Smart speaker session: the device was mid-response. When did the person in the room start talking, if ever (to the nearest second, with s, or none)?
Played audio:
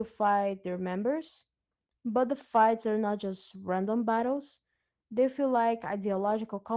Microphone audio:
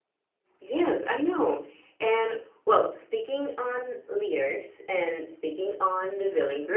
1 s